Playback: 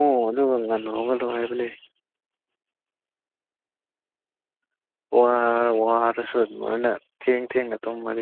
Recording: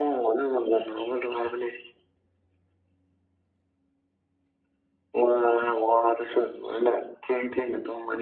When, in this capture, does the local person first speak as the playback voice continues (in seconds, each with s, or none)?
none